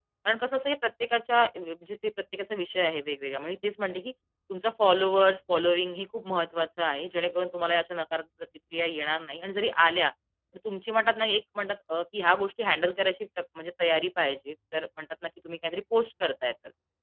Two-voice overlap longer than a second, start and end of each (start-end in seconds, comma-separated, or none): none